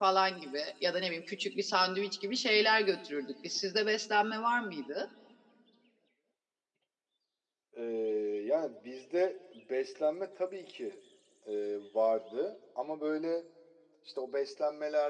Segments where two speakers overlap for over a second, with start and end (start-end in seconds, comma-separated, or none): none